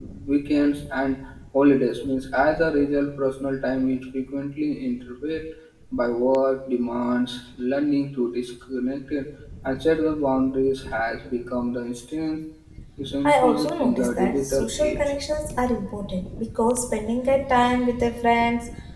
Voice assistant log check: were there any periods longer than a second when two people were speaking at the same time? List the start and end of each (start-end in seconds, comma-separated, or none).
13.2-15.0